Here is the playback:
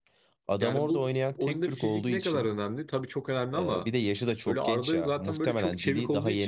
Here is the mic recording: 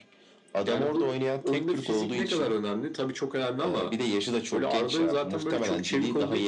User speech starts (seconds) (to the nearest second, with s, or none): none